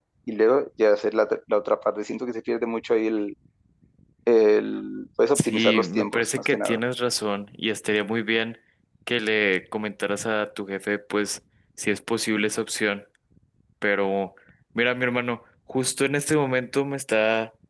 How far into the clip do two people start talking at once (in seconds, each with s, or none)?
5.3 s